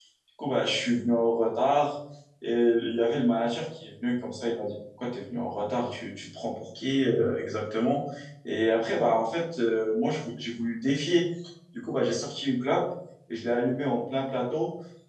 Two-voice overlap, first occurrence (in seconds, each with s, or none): none